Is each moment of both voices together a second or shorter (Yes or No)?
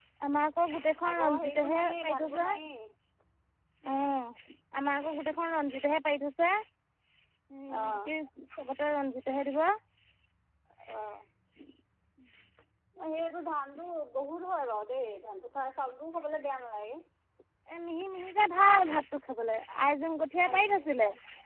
No